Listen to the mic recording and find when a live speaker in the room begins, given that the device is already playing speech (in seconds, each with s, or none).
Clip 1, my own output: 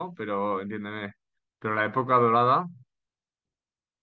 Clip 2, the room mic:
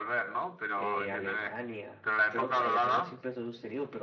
0.8 s